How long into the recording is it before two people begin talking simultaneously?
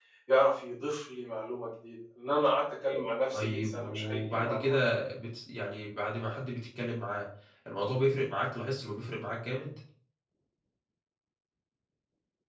3 s

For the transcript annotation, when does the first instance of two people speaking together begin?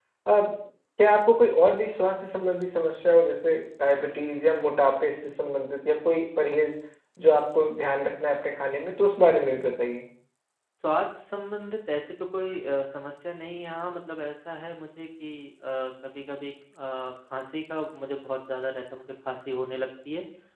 none

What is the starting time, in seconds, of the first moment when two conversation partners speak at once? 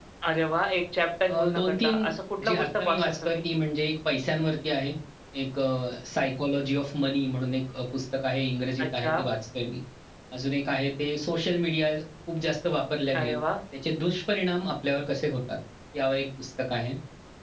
1 s

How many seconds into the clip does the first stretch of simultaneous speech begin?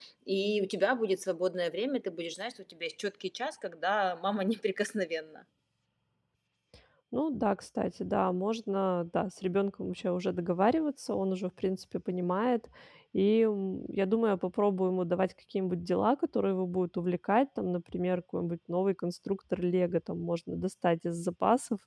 none

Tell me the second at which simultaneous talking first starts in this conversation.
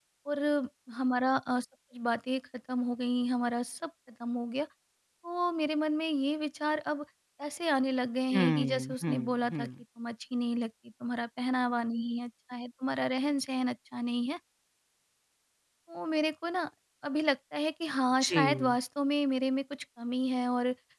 8 s

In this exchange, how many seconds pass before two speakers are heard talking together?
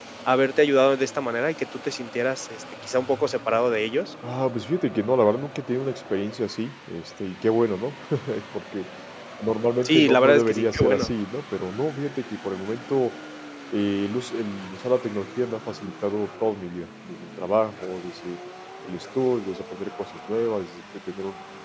10 s

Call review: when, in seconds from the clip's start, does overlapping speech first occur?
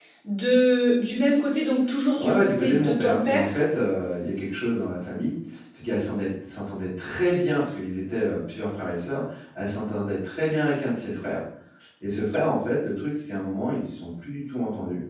2 s

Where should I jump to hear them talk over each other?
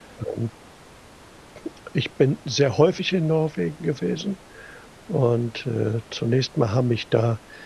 none

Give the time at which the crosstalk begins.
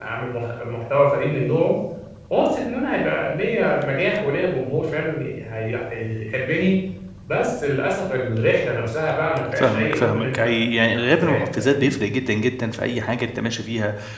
10 s

